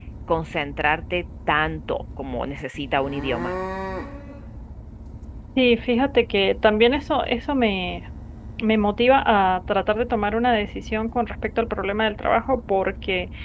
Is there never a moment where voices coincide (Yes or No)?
Yes